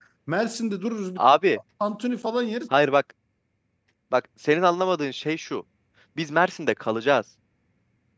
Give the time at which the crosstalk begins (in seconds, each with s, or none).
none